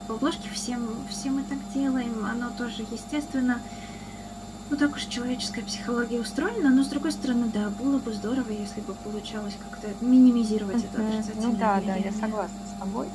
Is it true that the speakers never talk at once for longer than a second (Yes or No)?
No